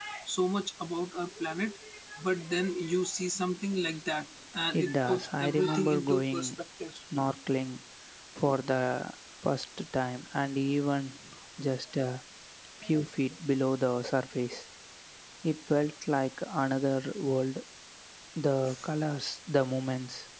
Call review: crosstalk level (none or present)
present